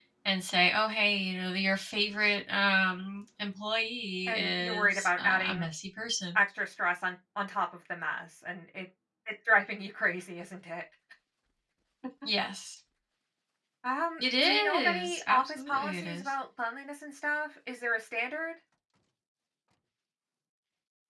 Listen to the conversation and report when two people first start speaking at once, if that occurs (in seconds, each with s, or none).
4.3 s